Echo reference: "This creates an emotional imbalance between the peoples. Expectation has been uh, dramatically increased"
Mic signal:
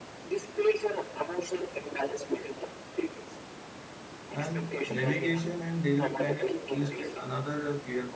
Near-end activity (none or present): present